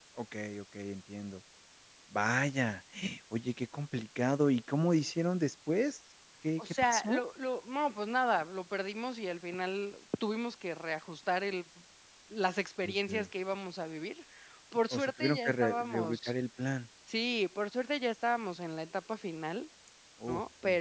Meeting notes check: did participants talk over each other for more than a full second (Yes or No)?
Yes